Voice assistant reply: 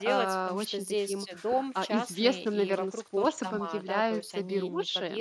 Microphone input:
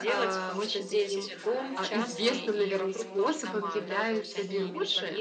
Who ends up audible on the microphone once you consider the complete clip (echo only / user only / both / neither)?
both